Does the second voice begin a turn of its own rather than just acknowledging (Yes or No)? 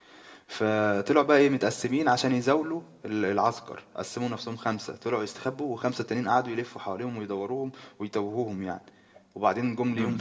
Yes